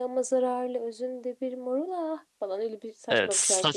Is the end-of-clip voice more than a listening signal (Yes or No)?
Yes